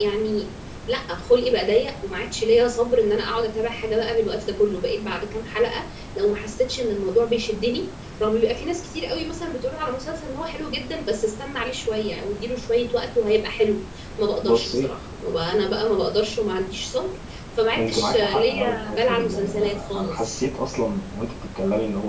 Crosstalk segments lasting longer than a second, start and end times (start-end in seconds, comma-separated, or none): 17.8-20.3